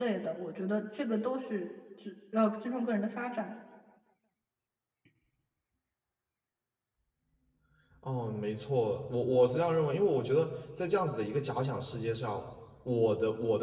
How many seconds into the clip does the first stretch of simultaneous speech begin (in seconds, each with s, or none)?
none